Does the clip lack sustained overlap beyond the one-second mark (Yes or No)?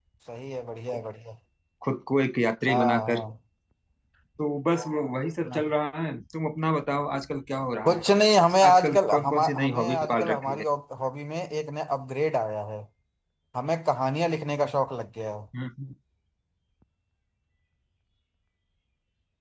No